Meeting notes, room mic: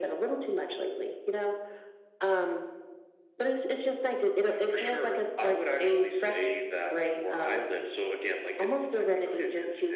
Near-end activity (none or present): none